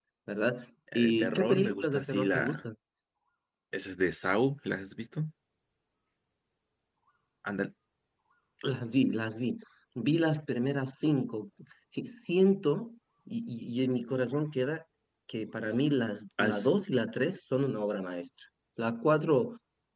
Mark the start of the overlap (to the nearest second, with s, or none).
1 s